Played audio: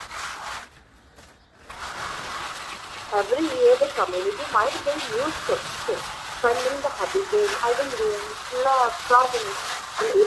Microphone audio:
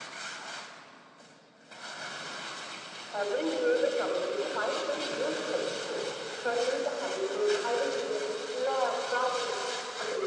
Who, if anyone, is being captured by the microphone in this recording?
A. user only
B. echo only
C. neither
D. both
B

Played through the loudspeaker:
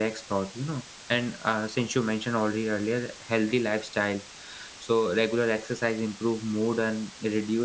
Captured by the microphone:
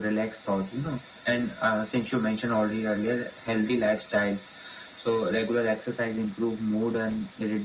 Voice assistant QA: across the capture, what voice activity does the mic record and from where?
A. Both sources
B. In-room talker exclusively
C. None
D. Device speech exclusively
D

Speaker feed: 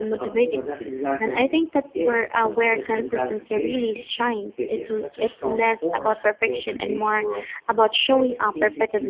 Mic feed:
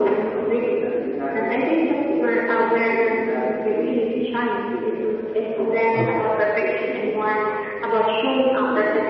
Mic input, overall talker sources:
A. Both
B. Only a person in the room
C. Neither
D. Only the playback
A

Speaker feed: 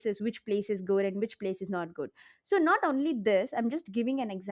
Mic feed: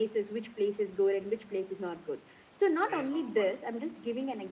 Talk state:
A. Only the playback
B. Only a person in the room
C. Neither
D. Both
D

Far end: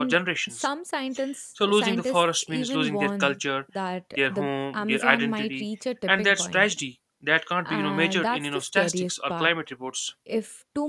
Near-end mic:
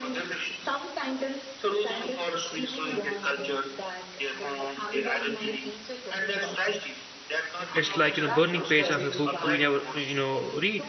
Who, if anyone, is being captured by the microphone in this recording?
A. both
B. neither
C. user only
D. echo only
A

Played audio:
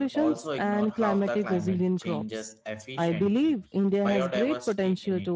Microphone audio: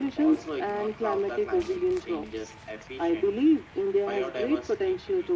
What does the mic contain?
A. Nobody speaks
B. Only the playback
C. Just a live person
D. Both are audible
B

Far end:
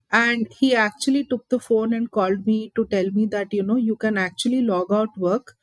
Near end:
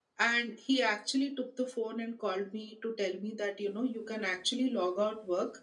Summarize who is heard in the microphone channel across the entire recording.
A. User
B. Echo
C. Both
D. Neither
B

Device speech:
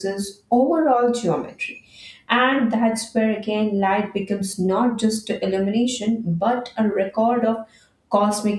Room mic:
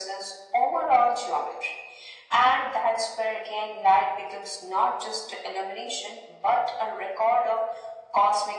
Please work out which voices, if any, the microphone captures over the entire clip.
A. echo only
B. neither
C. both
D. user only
A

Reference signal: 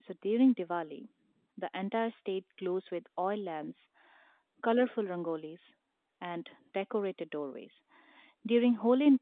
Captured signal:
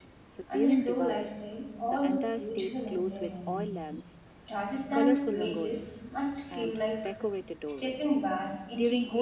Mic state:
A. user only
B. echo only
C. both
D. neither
C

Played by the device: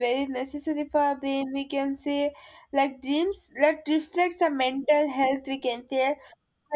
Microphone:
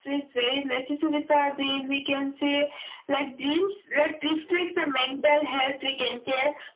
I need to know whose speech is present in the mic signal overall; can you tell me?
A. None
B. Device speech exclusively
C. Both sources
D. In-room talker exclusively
B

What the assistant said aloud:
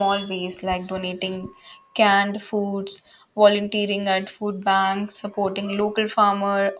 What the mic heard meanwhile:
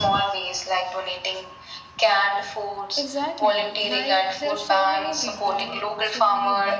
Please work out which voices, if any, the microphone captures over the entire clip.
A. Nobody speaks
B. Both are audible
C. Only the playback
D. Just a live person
B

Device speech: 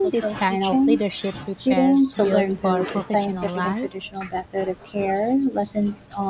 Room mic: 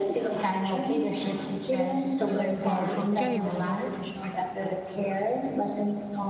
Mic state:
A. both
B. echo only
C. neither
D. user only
A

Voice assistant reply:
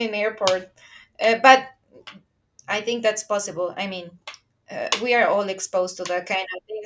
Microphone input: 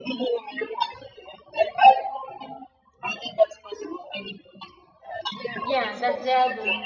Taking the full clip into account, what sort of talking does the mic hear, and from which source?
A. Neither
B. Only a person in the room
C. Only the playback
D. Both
D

